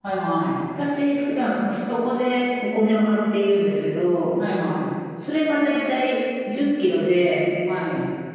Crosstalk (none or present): none